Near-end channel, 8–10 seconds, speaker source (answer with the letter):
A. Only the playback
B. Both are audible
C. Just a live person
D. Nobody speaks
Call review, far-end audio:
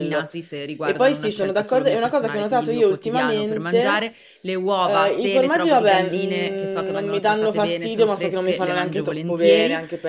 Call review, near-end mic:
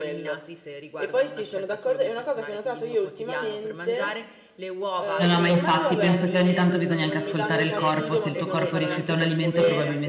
B